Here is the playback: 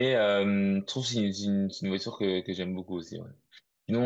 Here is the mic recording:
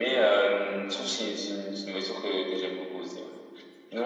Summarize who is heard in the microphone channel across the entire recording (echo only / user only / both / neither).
echo only